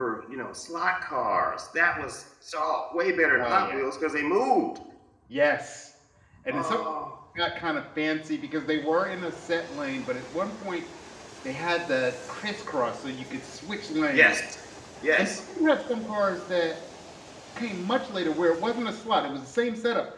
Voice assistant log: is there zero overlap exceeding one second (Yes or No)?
Yes